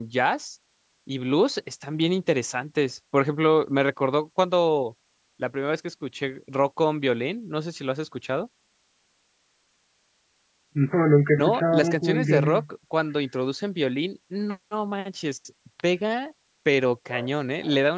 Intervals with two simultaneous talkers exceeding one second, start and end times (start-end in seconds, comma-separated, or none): 11.4-12.6